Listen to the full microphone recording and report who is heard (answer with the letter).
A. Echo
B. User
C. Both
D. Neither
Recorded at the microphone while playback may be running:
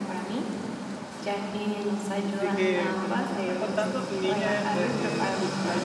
C